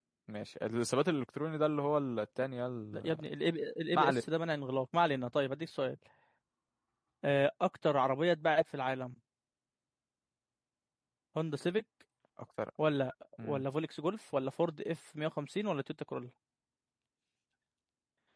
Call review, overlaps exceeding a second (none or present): none